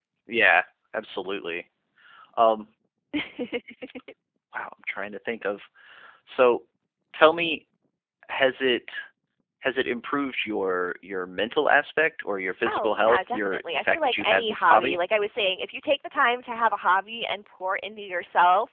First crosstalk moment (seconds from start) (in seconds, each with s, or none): 12.6 s